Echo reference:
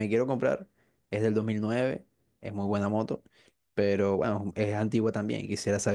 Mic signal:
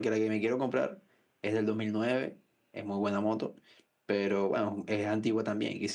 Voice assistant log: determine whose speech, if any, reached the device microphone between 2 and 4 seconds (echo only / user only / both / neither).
echo only